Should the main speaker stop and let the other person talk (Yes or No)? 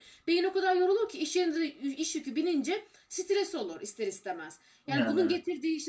No